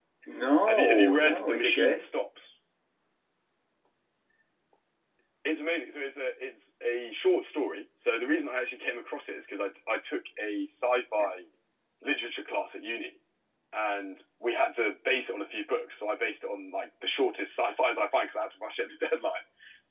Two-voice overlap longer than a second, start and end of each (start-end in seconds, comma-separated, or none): 0.7-2.1